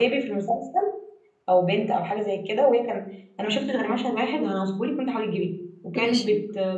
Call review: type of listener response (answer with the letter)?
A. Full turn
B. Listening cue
B